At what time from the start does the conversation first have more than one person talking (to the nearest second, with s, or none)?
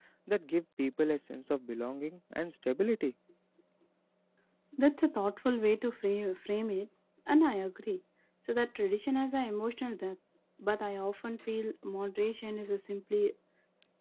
none